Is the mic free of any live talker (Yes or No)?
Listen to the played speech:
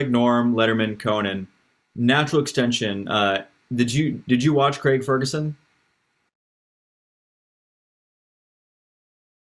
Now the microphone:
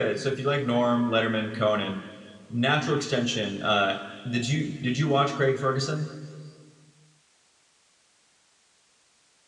Yes